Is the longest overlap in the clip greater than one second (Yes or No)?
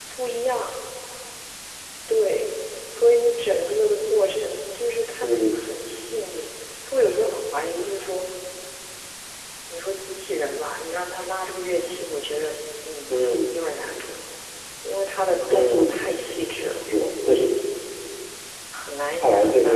No